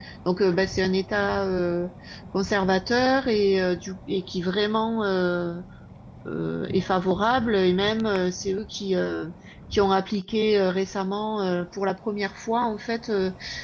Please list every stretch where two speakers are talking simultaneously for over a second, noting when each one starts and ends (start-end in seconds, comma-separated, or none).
none